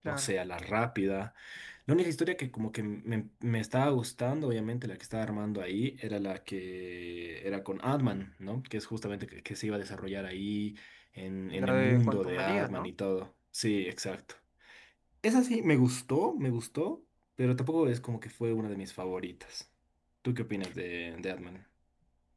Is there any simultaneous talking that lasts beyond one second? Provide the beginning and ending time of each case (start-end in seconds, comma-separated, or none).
11.6-12.9